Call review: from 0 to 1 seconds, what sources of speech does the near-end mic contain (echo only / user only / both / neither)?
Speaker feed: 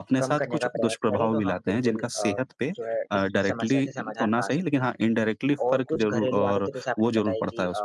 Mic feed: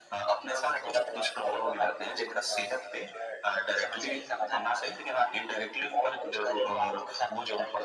echo only